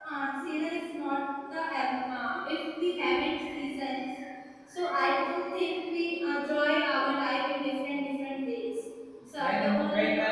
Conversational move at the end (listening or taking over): taking over